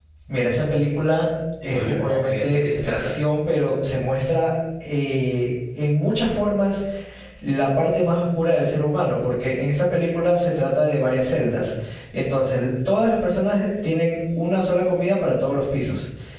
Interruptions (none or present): present